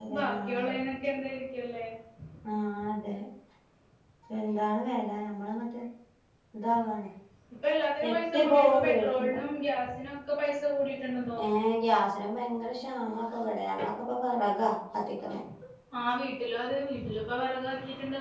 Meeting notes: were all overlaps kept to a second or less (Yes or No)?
No